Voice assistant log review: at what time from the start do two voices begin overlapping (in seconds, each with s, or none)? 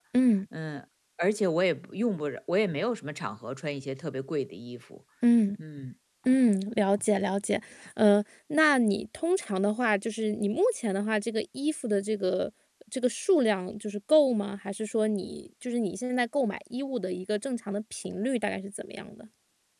none